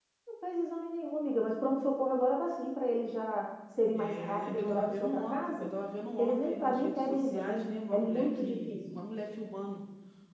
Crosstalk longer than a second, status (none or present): present